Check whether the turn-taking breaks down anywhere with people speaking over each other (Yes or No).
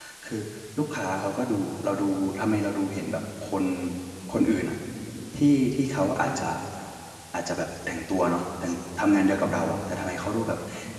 No